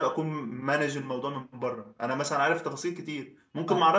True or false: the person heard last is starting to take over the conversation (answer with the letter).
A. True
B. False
B